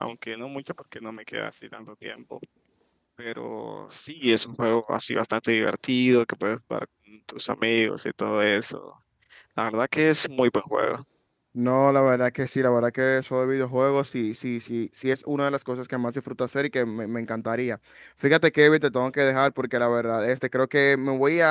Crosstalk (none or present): none